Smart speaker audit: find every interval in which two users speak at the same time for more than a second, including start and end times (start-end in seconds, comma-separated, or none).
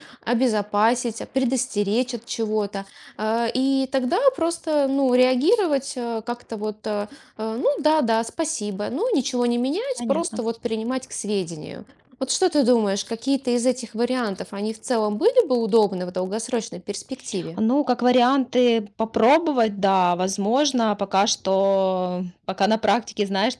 none